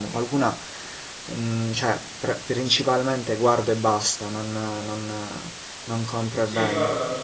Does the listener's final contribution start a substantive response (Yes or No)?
Yes